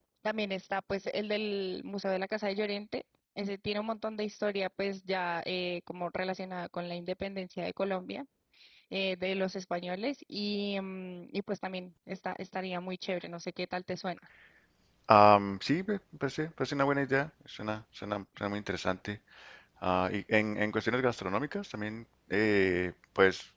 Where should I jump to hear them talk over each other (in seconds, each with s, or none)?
none